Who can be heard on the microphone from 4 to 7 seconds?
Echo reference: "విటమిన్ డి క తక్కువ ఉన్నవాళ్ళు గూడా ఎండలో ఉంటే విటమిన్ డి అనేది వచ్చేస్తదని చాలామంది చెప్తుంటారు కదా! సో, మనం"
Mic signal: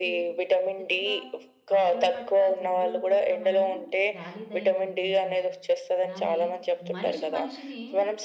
both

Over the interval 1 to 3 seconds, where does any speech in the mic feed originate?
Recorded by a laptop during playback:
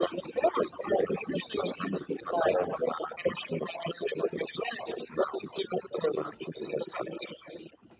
echo only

